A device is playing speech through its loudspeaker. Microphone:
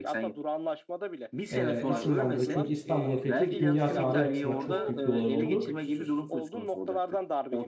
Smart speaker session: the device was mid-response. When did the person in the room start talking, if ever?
2 s

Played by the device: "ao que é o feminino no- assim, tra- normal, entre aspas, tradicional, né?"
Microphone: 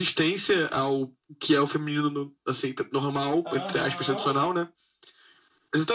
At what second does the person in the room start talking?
3 s

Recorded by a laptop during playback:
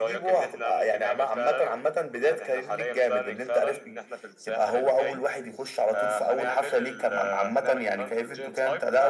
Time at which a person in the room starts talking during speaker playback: none

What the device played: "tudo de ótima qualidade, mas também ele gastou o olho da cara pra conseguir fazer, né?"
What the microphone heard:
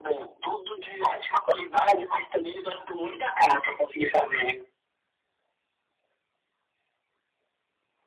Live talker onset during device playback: none

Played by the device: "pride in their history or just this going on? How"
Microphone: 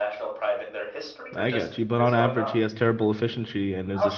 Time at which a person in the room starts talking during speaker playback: 1 s

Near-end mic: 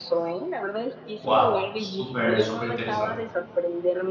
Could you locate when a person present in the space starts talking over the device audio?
1 s

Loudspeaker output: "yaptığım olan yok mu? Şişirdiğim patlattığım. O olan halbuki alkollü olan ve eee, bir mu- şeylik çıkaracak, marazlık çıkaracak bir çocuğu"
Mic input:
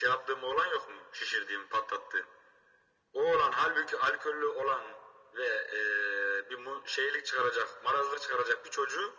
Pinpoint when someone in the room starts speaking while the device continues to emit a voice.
none

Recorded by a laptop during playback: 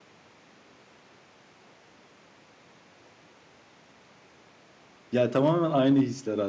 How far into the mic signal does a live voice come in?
5 s

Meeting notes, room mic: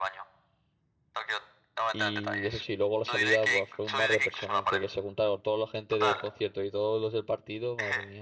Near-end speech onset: 2 s

